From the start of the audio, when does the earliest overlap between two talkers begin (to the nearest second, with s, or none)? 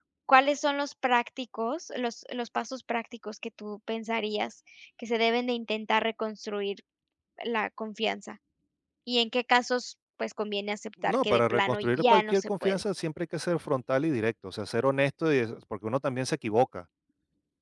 11 s